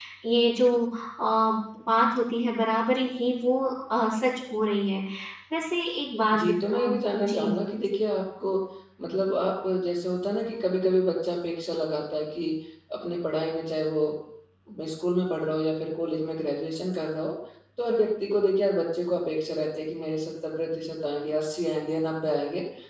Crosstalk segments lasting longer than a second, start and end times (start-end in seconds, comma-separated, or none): 6.3-7.5